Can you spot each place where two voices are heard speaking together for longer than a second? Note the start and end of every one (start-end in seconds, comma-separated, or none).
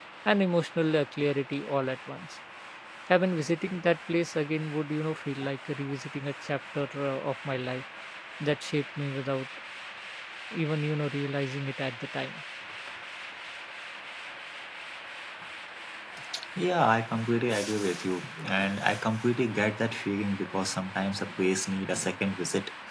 none